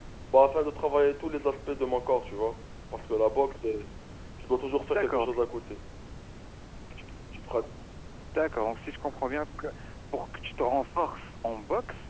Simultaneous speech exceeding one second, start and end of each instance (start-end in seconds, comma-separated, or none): none